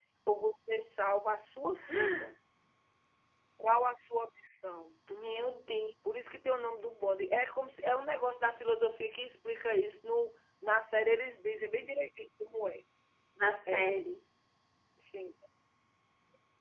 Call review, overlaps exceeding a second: none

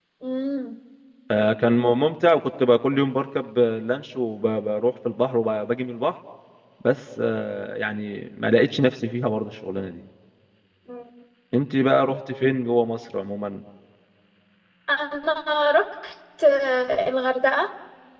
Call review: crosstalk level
none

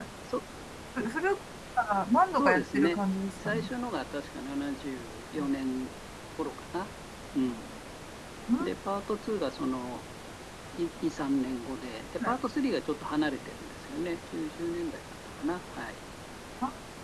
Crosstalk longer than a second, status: present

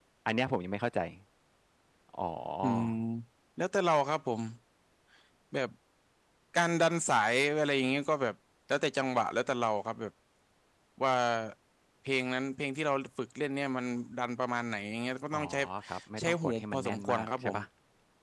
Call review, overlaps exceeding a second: present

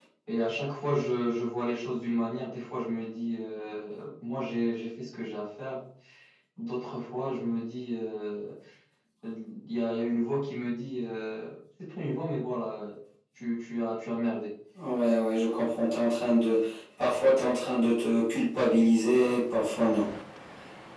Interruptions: none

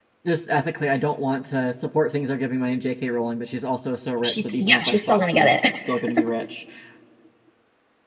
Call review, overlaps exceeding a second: present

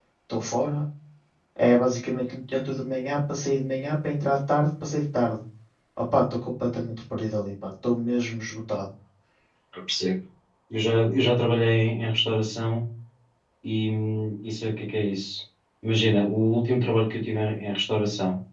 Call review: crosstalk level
none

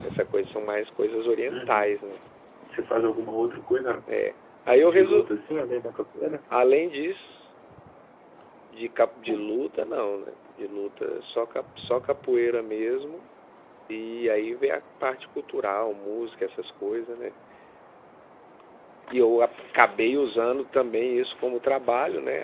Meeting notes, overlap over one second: none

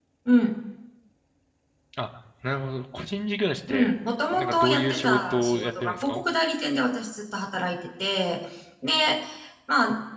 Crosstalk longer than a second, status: present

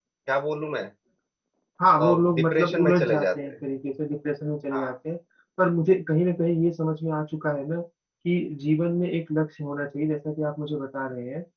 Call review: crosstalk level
present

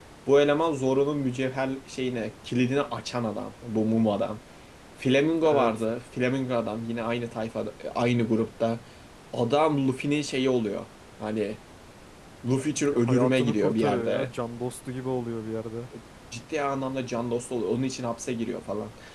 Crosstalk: present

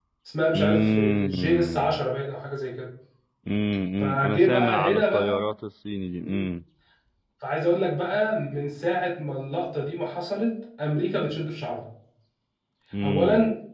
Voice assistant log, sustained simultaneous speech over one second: present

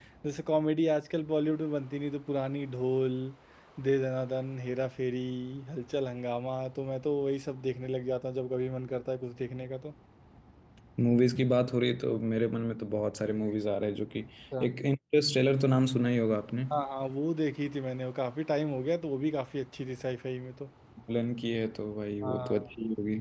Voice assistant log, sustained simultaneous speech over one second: none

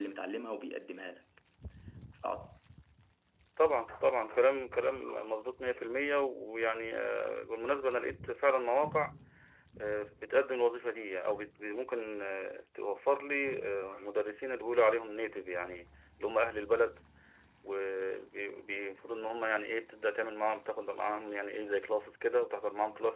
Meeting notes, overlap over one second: none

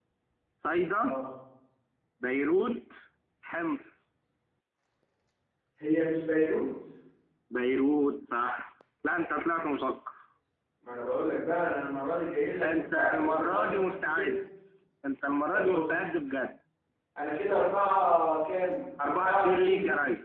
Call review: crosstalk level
present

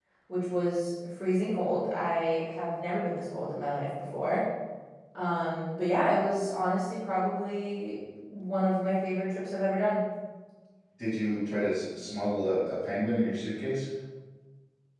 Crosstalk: none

